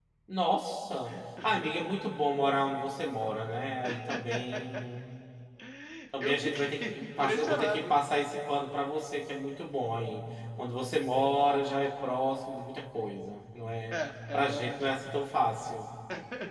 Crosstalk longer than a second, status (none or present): present